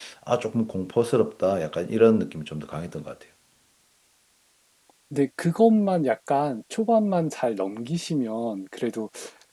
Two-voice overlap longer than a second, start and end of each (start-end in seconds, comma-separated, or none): none